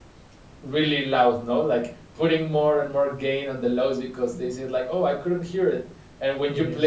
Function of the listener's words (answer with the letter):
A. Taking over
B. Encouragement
B